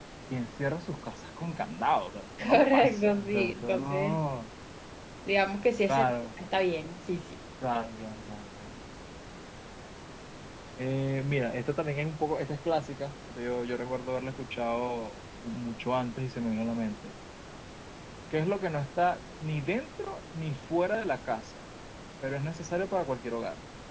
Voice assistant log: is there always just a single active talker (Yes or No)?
No